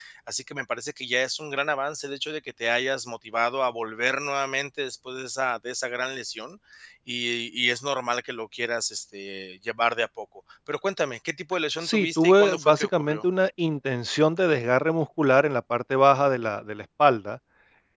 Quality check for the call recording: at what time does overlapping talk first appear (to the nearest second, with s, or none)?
12 s